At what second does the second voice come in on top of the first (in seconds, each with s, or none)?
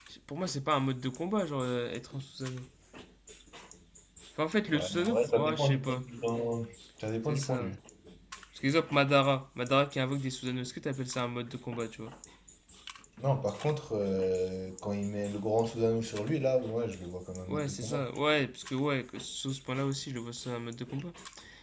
4.7 s